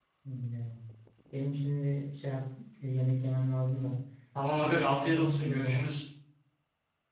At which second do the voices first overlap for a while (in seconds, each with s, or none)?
4.6 s